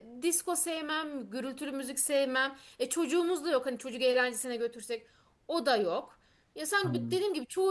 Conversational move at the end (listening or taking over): listening